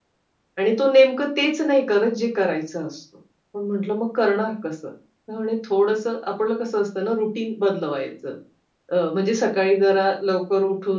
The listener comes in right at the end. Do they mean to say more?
No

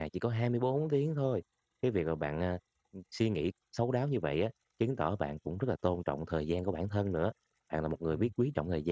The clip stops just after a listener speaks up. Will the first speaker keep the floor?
Yes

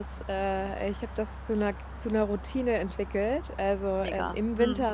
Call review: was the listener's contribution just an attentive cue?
Yes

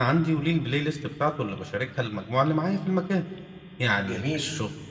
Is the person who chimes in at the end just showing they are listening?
Yes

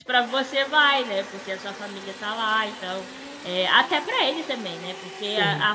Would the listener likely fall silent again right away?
Yes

